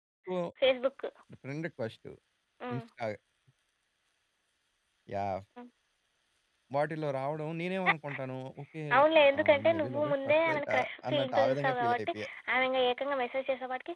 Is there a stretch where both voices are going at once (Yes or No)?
Yes